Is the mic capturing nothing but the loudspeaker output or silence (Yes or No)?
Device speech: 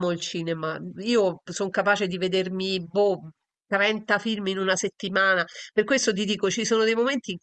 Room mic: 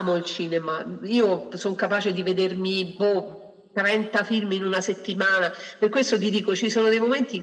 Yes